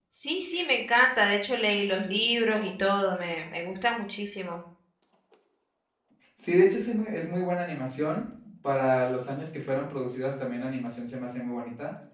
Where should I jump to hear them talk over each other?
none

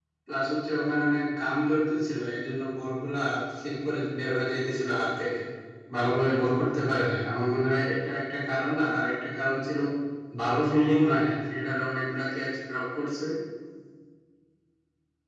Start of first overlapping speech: none

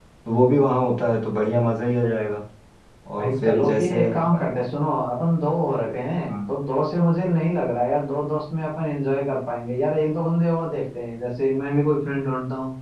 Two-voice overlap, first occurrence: 3.2 s

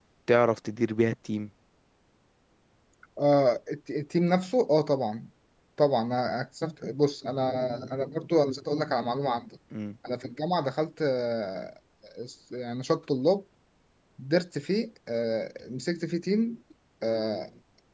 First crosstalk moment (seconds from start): none

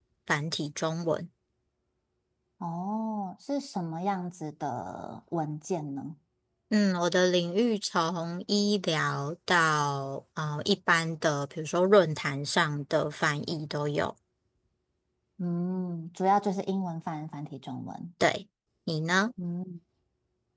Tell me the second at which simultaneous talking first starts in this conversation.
none

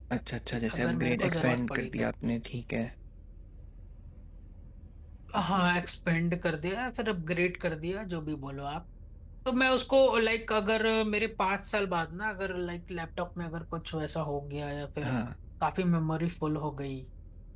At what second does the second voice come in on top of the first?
0.7 s

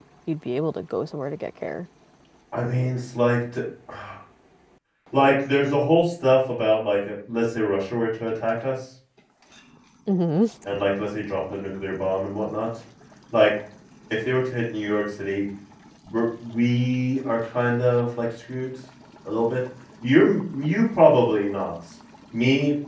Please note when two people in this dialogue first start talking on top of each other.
none

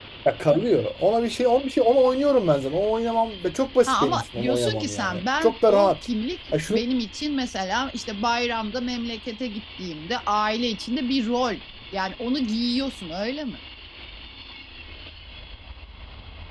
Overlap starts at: 3.9 s

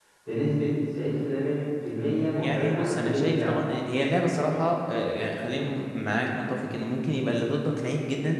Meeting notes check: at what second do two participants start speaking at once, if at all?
2.4 s

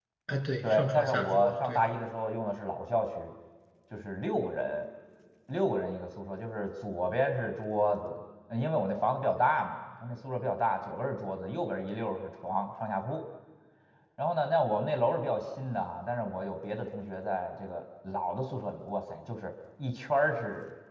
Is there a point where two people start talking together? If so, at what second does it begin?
0.6 s

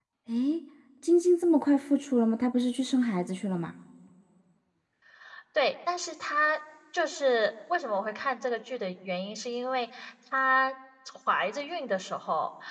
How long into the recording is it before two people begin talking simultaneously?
none

